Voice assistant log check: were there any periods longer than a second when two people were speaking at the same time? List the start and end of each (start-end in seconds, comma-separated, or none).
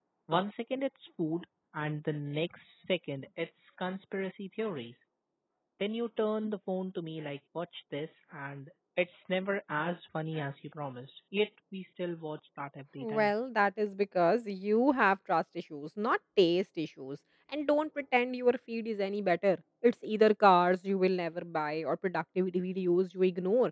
none